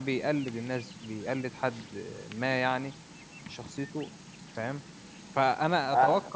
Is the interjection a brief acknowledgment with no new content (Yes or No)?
Yes